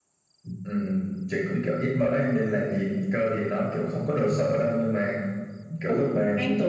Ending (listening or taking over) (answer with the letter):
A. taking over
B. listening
A